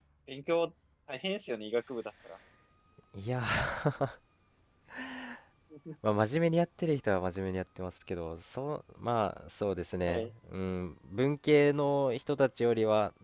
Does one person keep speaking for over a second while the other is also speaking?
No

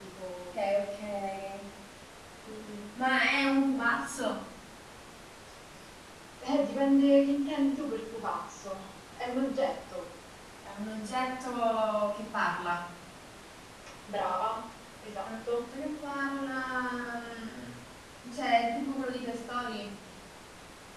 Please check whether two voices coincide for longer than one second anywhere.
No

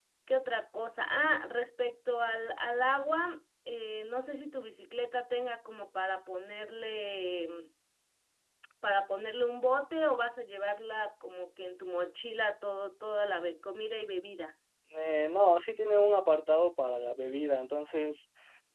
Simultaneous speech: No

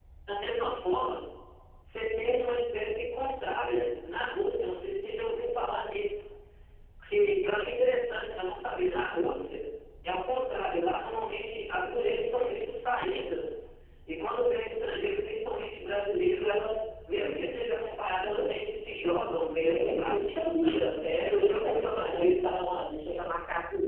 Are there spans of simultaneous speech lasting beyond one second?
Yes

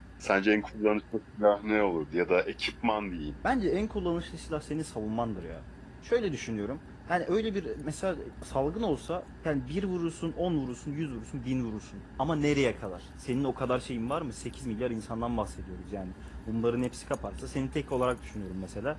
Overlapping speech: No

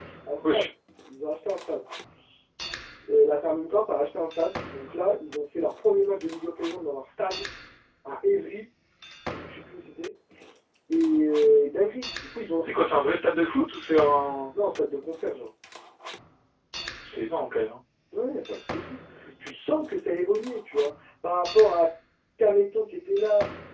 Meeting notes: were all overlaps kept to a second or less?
Yes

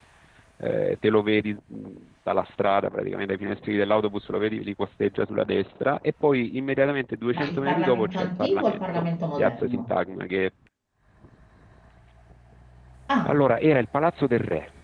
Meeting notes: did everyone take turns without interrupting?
No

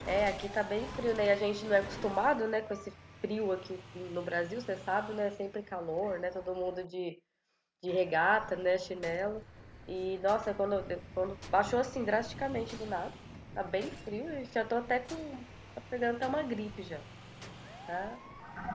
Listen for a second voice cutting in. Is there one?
No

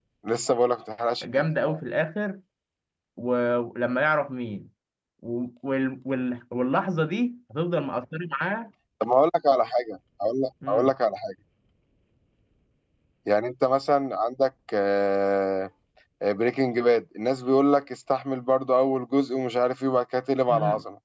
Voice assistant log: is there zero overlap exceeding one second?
Yes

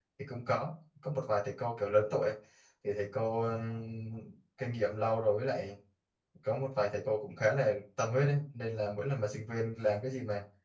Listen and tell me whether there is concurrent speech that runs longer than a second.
No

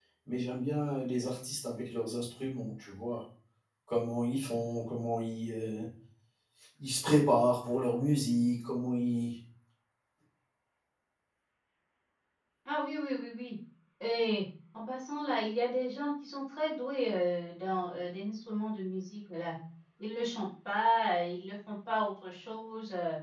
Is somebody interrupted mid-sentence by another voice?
No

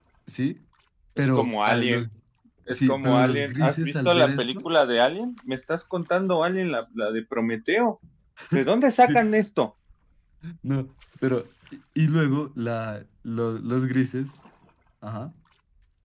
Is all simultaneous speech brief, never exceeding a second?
No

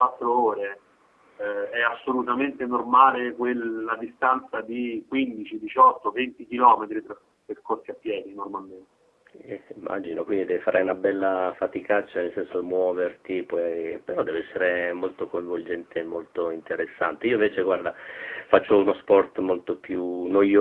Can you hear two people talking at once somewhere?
No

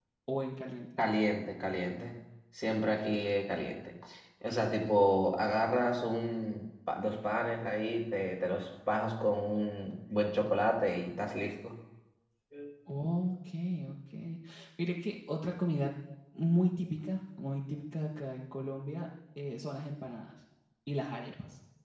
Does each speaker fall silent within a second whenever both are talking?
Yes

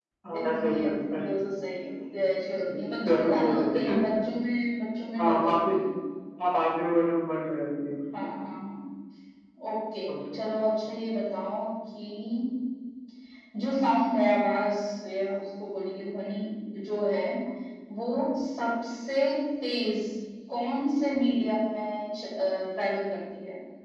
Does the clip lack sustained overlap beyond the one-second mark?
No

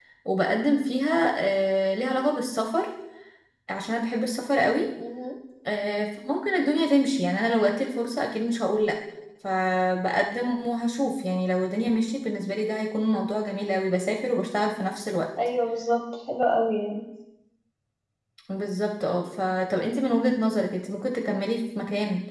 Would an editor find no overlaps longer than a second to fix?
Yes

